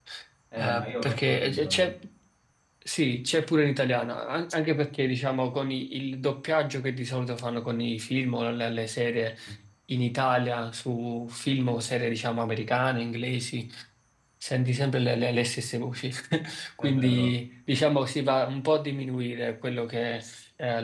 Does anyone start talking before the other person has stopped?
Yes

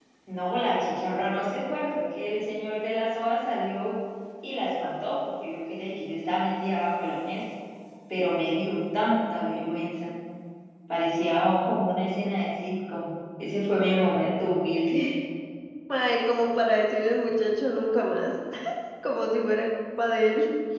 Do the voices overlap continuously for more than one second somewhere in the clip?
No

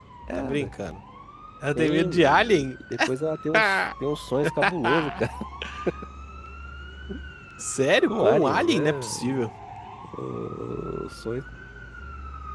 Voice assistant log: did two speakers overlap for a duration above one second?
Yes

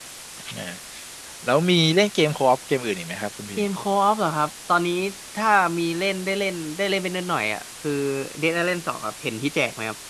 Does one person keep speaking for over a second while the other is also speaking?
No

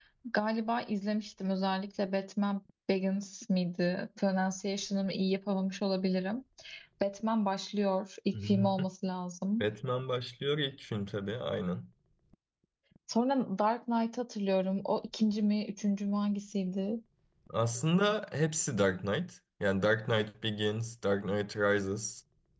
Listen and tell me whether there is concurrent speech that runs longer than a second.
No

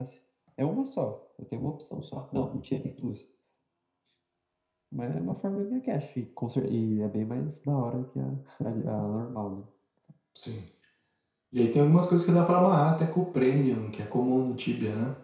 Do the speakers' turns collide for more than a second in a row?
No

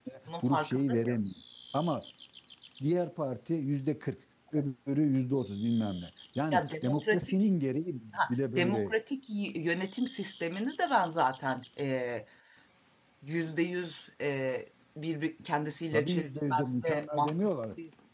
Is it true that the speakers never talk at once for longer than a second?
No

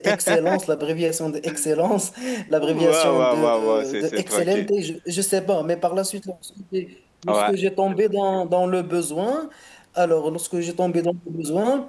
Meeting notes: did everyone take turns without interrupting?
No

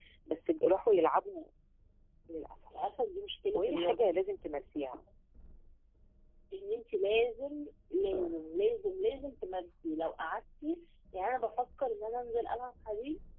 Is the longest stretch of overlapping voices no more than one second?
Yes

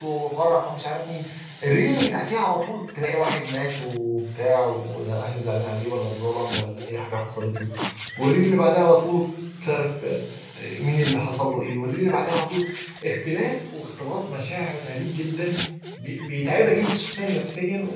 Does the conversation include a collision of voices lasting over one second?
No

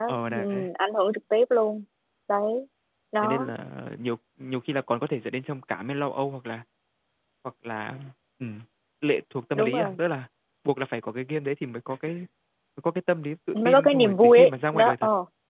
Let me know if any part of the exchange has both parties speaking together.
Yes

